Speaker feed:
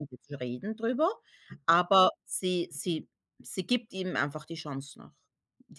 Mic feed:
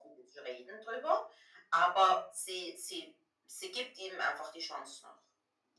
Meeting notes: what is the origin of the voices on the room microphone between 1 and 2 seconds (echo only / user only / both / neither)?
echo only